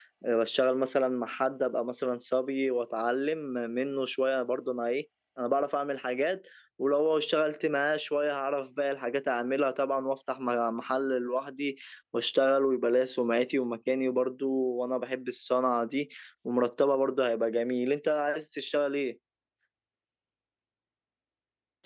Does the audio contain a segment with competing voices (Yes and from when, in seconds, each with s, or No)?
No